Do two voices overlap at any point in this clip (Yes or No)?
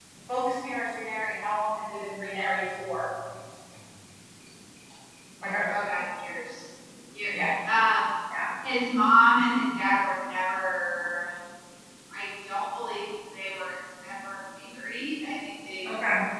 No